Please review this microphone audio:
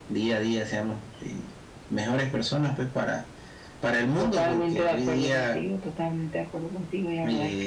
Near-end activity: none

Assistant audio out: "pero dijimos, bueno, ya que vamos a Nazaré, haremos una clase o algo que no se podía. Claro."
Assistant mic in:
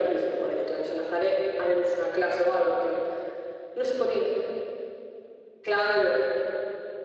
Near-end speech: none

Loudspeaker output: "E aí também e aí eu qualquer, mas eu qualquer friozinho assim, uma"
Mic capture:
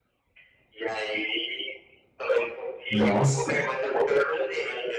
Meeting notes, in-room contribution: present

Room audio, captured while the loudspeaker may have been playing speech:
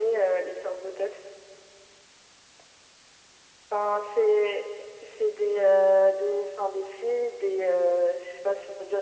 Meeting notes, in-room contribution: none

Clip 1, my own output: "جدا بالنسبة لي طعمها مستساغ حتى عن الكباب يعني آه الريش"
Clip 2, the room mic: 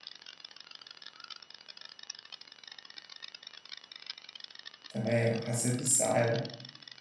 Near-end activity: present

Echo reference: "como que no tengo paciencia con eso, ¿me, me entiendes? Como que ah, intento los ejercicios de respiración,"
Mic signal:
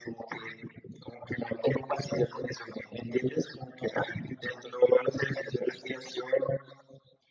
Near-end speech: none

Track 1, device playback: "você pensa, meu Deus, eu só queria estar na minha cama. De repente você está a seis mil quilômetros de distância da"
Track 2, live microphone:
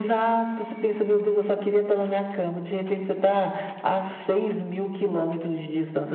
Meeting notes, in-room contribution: none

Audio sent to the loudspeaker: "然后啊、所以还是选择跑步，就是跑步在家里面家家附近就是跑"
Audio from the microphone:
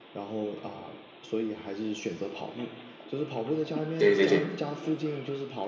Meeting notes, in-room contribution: present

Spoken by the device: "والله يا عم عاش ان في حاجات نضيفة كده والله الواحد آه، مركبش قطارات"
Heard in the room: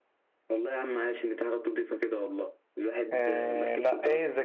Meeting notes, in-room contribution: present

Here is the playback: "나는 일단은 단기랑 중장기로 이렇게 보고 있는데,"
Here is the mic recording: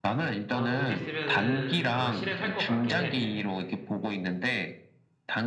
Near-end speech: present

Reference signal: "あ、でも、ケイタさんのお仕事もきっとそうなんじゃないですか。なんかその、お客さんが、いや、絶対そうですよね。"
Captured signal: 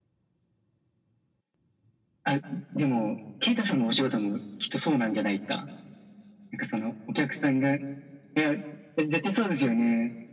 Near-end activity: none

